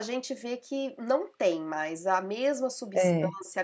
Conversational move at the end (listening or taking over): listening